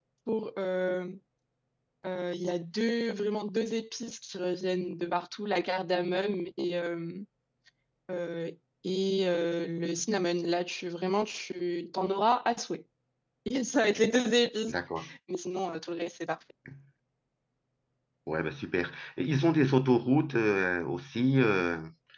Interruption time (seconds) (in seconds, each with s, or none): none